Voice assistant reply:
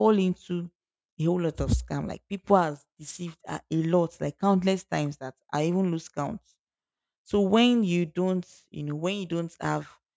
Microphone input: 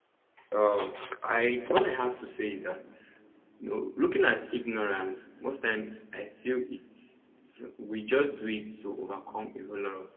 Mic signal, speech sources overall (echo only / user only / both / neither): user only